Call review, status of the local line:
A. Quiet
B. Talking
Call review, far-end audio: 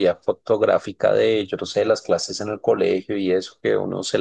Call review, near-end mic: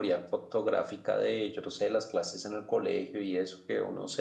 A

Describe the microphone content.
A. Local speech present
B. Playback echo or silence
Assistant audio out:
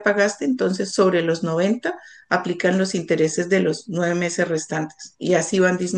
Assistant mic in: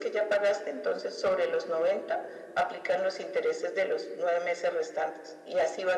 B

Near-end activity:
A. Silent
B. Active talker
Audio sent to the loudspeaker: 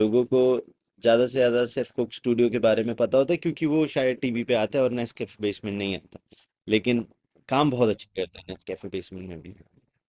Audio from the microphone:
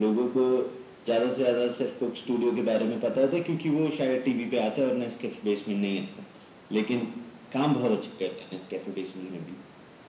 A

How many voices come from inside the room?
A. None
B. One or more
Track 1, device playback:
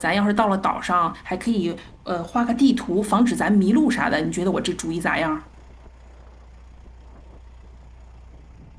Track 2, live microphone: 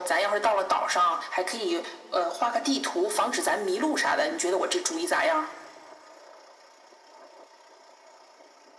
A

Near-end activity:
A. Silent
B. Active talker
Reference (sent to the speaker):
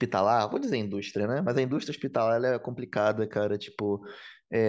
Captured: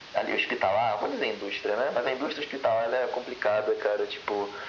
A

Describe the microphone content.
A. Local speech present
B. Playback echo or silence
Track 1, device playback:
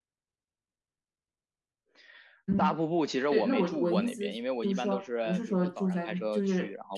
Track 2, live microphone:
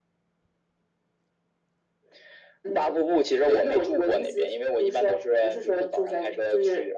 B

